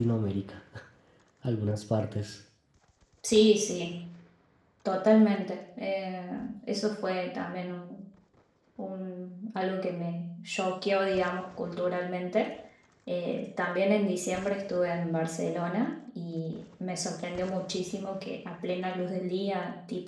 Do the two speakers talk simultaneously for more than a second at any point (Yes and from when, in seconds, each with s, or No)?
No